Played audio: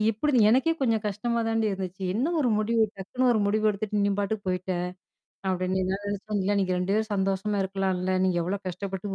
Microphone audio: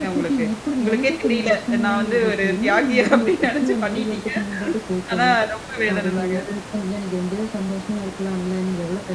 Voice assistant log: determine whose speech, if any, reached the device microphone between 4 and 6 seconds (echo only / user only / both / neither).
both